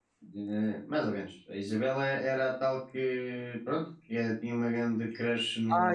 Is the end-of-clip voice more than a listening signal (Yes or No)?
Yes